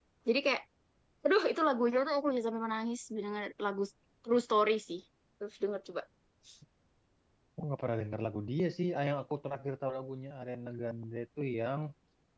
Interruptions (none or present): none